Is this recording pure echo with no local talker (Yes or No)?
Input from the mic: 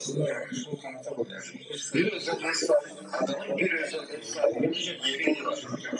Yes